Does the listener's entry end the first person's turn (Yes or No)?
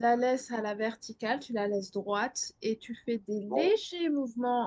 No